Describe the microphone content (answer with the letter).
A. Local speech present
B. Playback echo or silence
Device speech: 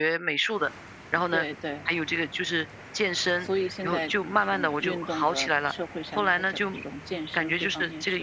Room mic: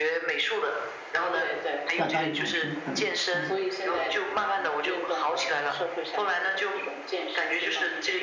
A